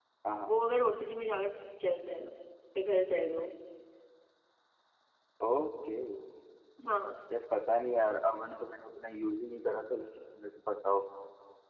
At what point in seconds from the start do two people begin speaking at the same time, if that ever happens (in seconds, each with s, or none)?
none